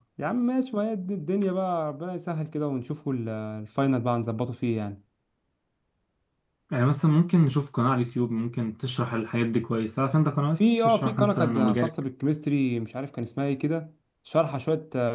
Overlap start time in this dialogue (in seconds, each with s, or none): 10.6 s